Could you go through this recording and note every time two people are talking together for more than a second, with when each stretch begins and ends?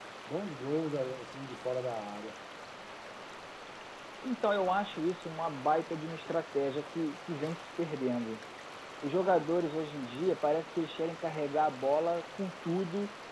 none

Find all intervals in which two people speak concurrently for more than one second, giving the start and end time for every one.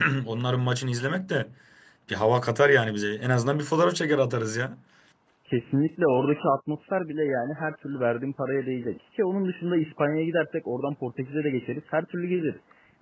none

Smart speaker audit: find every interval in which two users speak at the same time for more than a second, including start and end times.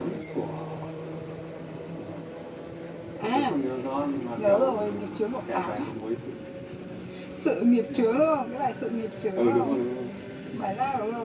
4.4-5.7

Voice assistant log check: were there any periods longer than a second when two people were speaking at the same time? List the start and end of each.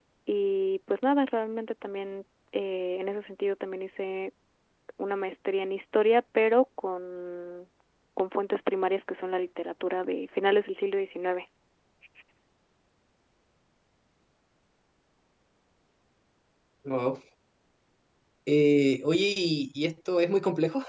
none

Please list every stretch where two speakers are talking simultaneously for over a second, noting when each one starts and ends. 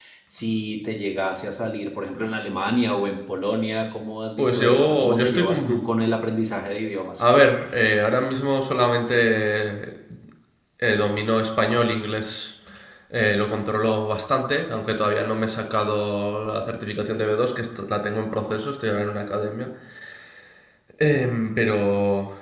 4.4-5.8

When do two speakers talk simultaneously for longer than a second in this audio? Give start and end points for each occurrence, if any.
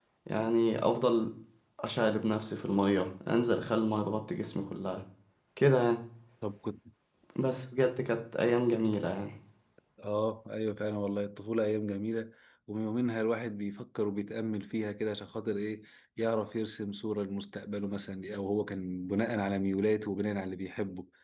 none

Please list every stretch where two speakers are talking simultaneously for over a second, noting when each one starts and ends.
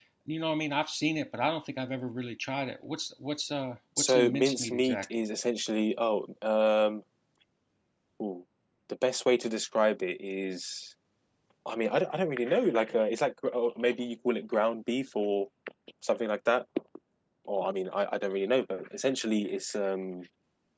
4.0-5.2

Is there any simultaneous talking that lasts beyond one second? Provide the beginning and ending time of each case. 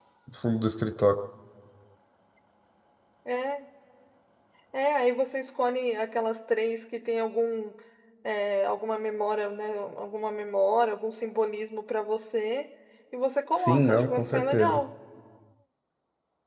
13.5-14.8

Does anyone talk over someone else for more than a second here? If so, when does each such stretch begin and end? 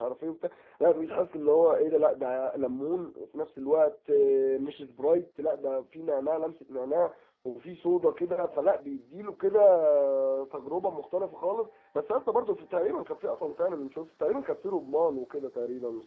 none

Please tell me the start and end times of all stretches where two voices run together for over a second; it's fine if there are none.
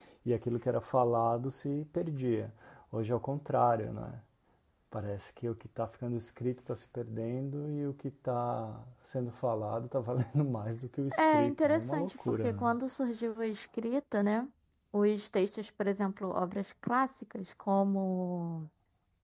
11.2-12.6

